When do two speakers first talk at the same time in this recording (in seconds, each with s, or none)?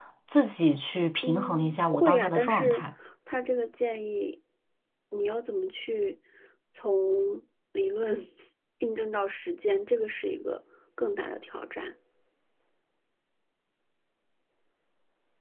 1.2 s